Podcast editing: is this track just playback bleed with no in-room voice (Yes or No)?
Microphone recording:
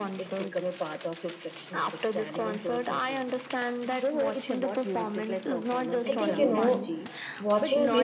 No